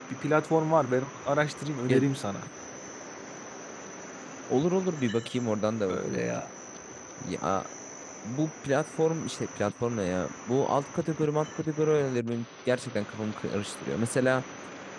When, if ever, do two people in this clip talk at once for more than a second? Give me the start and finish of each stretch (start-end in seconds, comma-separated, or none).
none